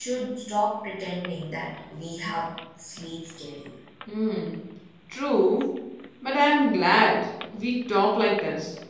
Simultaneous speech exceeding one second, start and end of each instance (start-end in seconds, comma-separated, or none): none